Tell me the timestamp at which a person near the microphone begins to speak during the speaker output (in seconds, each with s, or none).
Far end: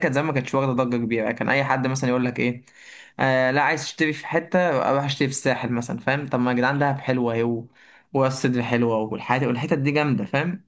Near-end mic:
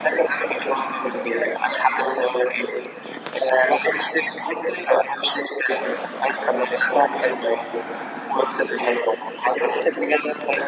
none